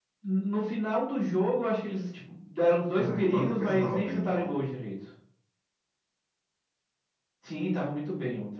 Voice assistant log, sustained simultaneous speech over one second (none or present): present